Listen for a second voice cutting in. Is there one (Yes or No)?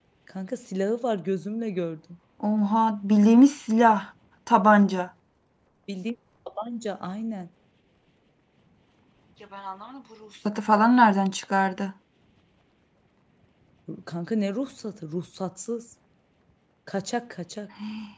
No